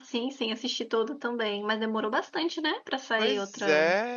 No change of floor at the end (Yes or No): No